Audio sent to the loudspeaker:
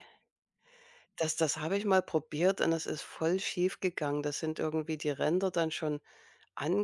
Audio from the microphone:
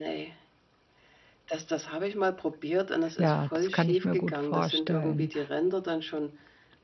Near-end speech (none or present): present